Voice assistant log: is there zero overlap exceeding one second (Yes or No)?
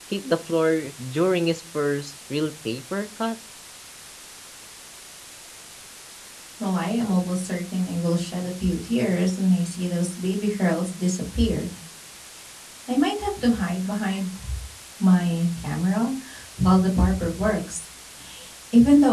Yes